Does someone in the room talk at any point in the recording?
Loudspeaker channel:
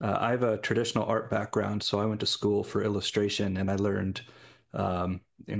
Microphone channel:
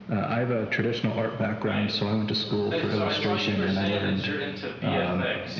Yes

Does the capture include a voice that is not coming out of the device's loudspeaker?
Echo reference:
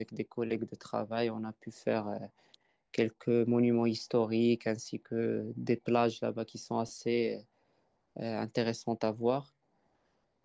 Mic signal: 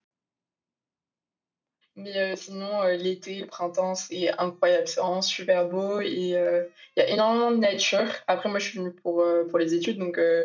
Yes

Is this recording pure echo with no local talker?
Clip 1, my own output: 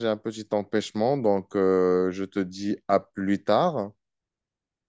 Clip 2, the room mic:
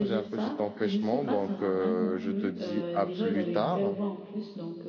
No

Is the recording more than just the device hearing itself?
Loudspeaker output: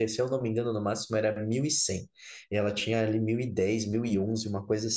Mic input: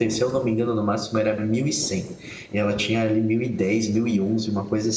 No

